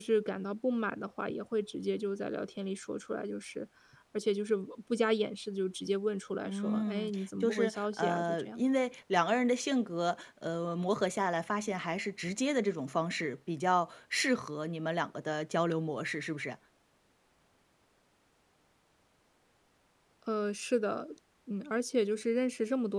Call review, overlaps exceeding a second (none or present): present